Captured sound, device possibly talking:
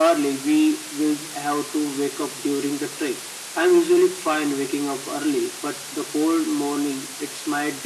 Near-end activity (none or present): none